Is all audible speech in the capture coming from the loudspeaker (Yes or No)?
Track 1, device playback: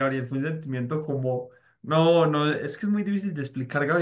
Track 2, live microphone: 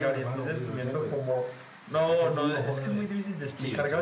No